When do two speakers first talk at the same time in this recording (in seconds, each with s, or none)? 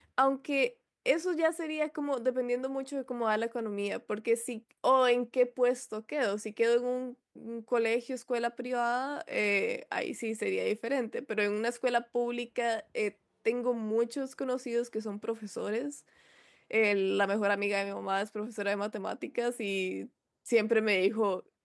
none